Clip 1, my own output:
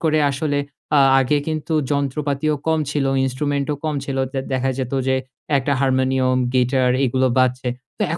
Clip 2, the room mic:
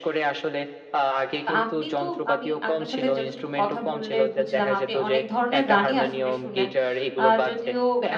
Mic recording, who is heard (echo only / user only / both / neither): both